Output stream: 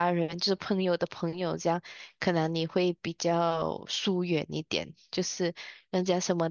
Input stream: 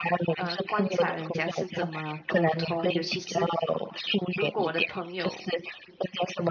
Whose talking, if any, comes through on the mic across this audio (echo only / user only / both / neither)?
both